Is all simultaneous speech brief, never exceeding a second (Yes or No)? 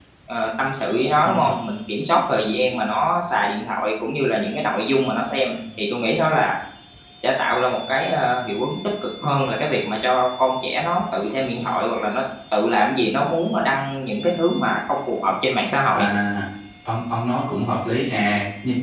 Yes